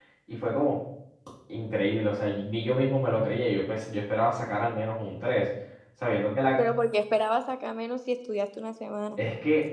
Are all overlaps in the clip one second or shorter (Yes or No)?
Yes